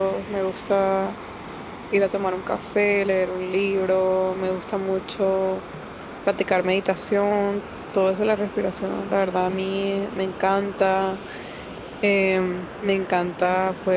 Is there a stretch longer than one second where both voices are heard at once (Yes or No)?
No